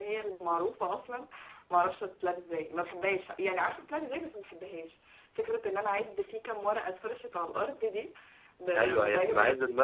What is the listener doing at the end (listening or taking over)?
taking over